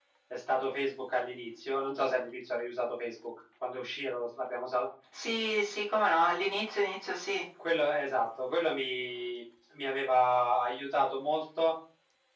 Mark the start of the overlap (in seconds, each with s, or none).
none